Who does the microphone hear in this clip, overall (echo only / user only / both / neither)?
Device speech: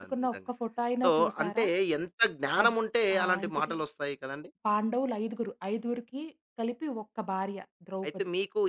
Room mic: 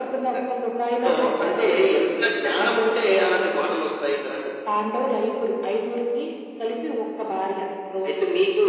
echo only